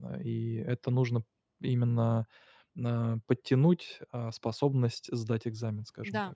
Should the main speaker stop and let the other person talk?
Yes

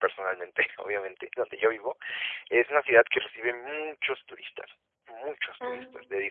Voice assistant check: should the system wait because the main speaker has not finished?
Yes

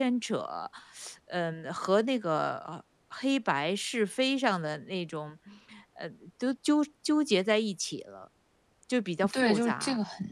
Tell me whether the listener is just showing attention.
No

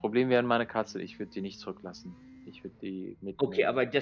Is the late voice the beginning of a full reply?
Yes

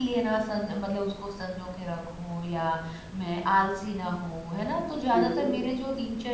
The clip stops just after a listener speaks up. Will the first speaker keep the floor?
Yes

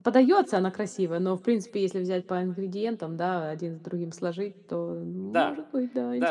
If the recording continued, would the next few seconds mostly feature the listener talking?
Yes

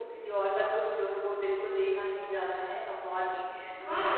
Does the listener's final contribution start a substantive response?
Yes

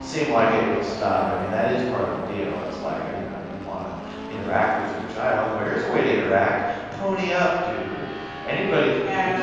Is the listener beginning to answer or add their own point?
No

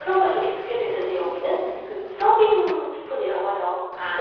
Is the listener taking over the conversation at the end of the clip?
No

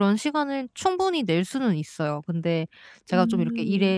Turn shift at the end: No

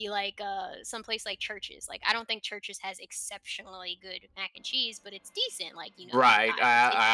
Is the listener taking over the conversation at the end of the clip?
Yes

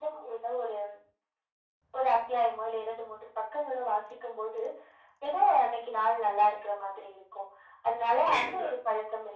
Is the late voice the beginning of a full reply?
No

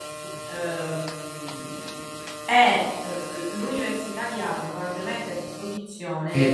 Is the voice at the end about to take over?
Yes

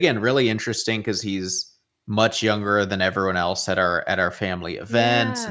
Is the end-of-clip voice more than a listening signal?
No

